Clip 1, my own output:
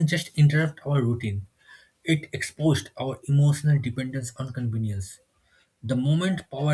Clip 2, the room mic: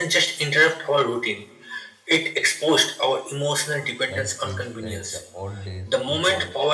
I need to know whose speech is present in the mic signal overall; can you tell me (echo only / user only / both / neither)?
both